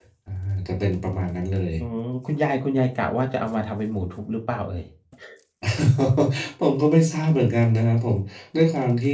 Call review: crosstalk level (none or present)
none